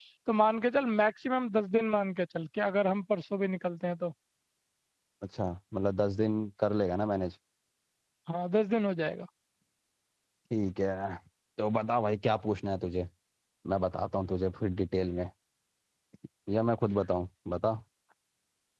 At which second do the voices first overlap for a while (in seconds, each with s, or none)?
none